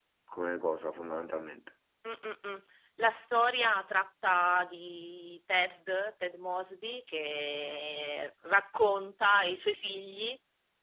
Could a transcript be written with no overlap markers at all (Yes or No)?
Yes